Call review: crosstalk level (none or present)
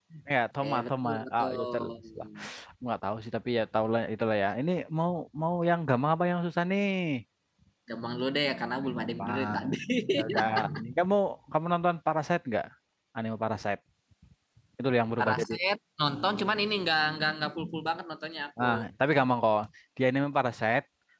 present